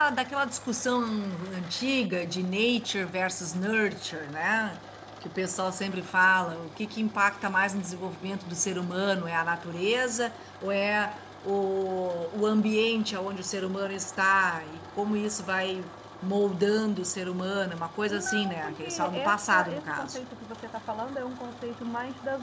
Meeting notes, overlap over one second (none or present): present